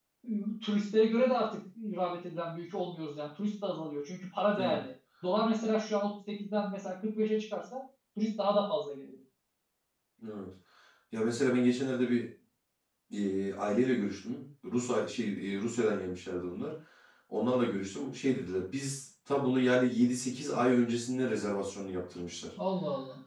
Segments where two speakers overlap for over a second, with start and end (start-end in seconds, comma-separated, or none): none